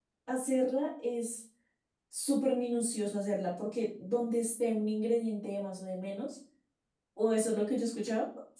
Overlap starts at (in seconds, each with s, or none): none